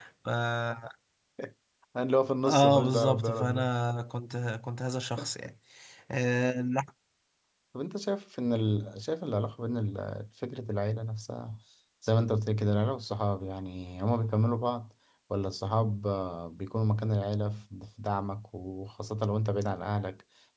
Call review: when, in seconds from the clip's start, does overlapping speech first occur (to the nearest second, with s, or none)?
2 s